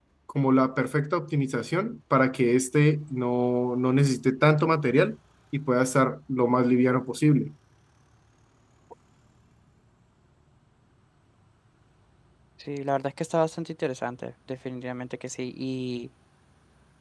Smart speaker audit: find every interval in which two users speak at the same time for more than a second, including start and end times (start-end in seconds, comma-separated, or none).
none